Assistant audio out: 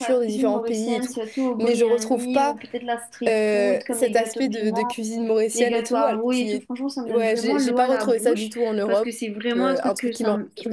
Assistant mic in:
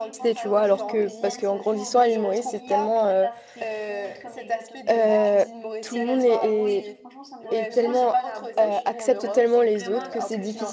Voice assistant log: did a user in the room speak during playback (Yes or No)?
Yes